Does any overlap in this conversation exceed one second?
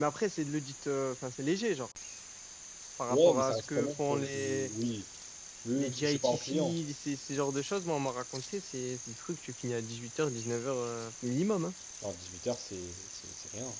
Yes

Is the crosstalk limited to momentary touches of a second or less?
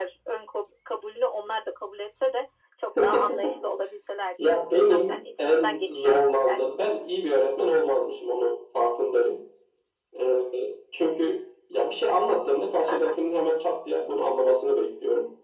No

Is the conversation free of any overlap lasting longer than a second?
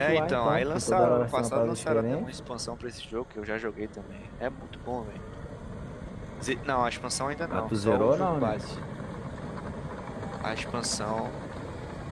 No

